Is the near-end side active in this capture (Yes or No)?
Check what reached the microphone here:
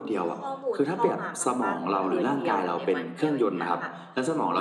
Yes